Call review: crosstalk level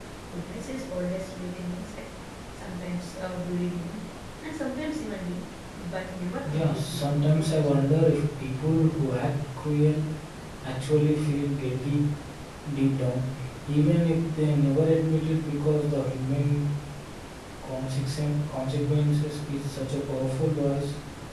present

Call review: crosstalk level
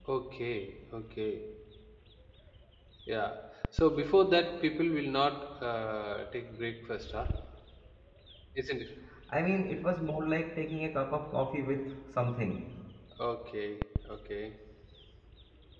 none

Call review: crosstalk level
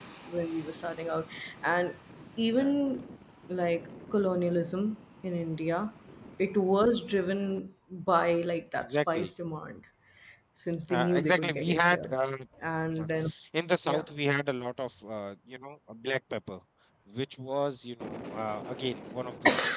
present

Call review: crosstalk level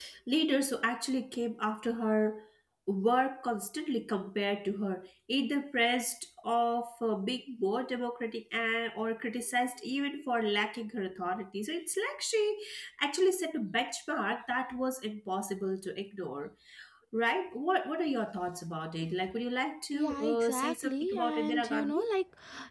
present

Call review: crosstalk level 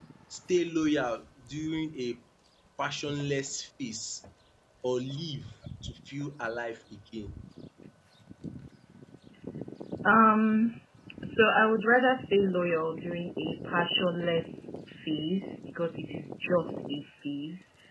none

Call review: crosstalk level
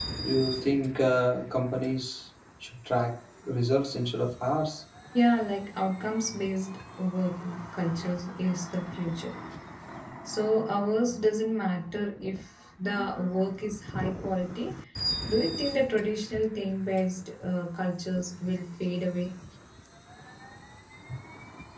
none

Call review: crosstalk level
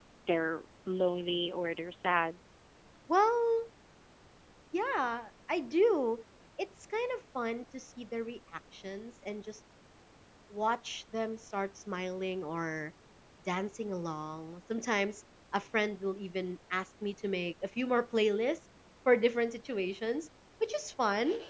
none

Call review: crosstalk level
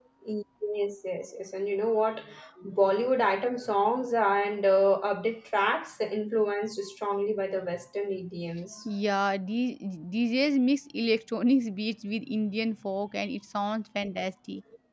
none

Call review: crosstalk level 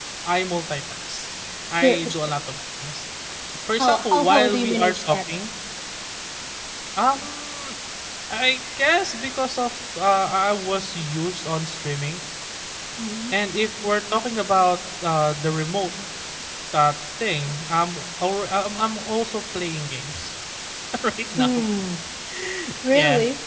present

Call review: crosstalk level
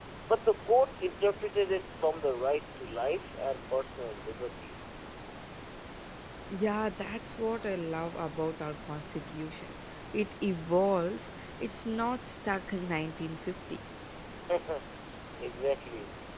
none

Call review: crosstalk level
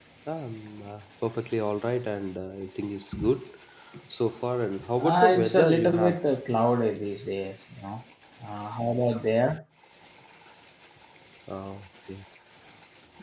present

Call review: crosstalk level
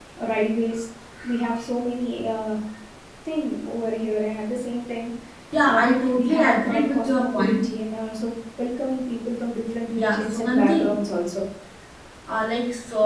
present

